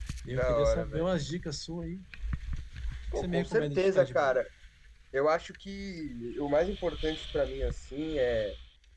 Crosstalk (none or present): present